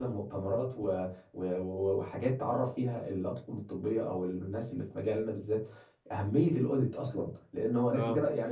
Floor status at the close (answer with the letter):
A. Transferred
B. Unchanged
B